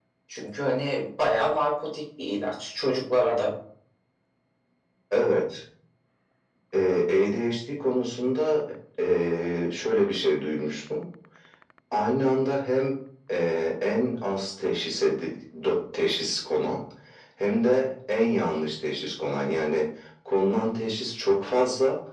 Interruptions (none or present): none